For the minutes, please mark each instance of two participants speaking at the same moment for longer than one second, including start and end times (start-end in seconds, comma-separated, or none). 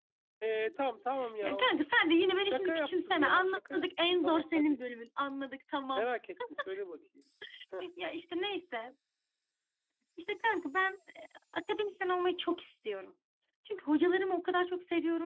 2.4-4.8